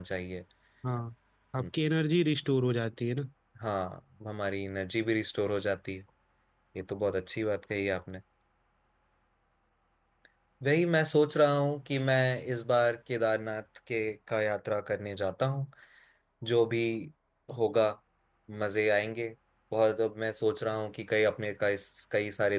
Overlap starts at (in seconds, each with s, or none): none